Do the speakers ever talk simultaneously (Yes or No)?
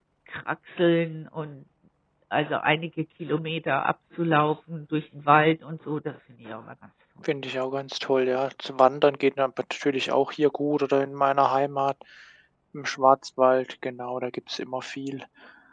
No